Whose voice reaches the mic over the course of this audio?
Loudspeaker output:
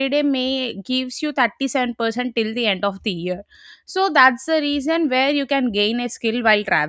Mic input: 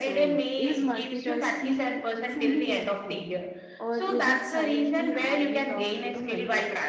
both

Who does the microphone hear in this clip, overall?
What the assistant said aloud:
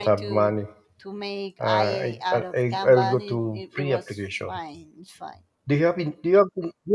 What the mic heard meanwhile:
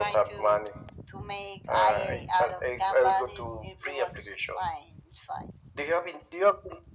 echo only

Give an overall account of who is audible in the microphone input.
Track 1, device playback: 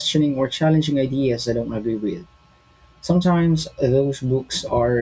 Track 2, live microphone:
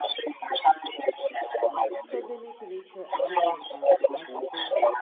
both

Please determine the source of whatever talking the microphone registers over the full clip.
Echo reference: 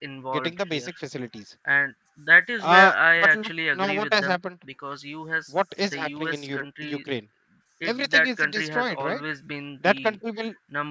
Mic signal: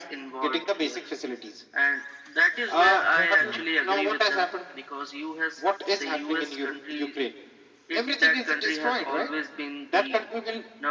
both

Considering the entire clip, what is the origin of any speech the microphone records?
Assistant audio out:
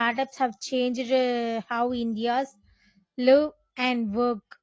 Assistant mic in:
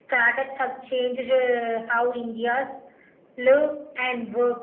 echo only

